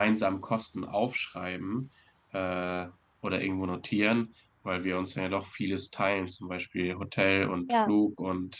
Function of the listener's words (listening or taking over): listening